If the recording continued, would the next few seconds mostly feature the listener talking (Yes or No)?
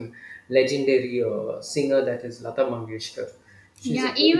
Yes